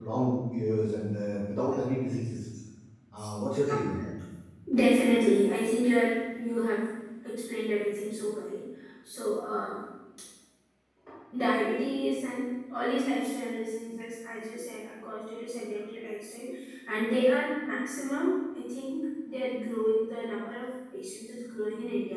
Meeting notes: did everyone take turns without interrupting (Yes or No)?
Yes